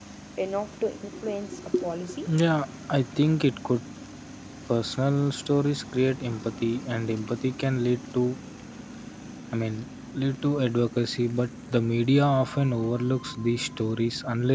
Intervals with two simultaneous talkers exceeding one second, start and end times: none

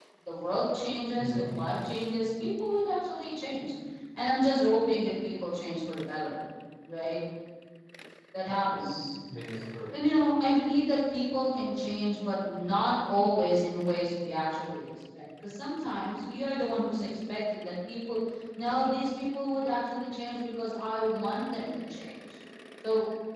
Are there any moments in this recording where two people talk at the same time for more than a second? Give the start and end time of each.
none

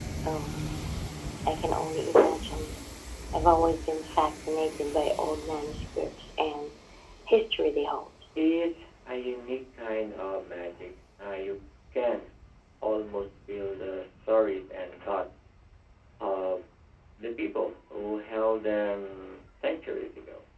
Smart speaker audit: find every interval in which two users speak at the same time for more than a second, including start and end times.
none

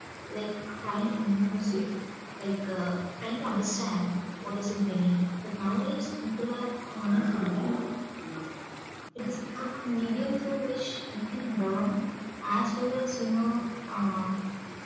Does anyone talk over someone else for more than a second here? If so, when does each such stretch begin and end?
none

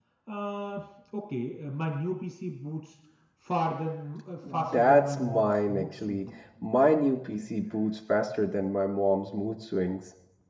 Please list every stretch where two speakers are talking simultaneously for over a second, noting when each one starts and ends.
4.7-6.2

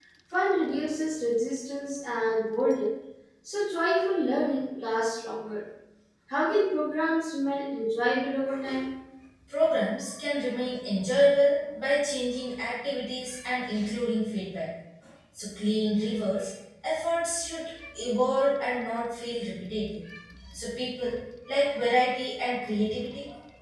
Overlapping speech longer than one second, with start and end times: none

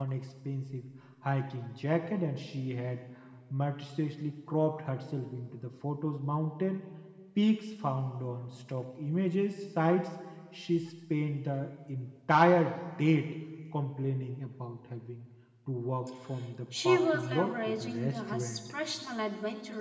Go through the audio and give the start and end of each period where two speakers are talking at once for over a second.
16.8-18.6

